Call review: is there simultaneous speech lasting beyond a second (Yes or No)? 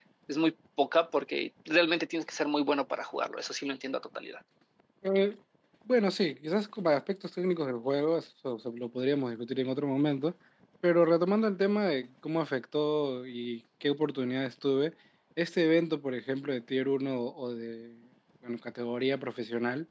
No